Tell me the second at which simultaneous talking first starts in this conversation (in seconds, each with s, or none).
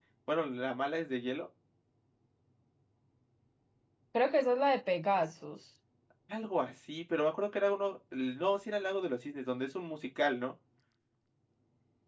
none